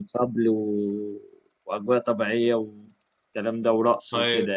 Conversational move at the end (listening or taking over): taking over